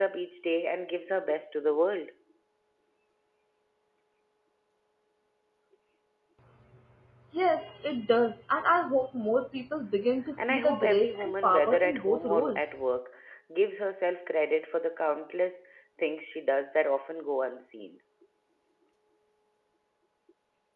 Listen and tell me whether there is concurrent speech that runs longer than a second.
Yes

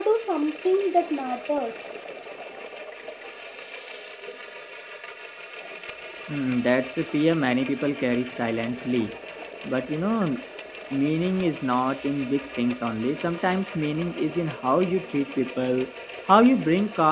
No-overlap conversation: Yes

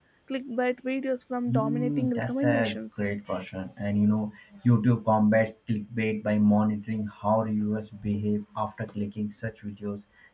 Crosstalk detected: Yes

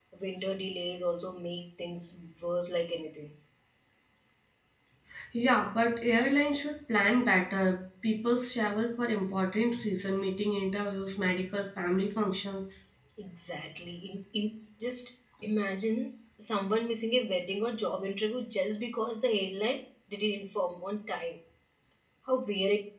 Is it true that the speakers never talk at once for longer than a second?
Yes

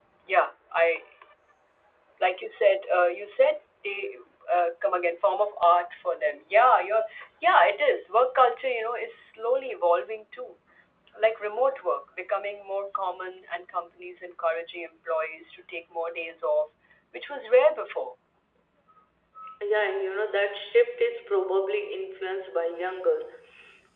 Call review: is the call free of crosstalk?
Yes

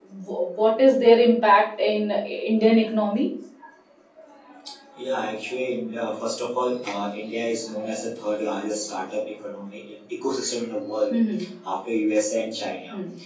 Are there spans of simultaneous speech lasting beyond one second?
No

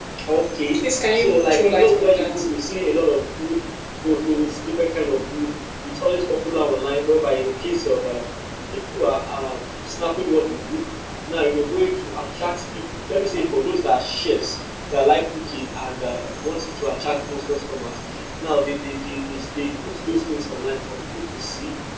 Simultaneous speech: Yes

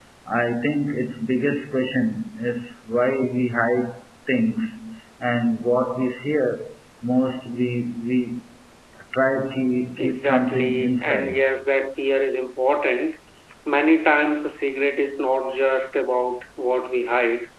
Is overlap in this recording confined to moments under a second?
No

